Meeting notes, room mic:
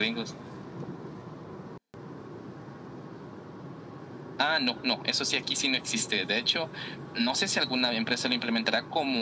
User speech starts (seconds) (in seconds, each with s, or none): none